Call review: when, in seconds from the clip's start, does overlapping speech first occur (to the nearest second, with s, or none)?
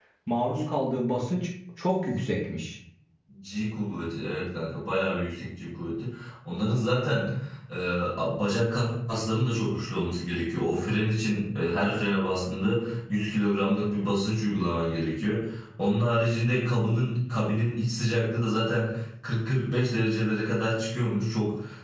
none